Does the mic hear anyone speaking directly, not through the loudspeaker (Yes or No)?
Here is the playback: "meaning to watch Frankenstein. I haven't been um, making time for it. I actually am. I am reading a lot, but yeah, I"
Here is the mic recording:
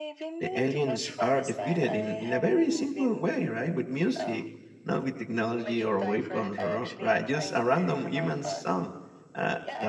Yes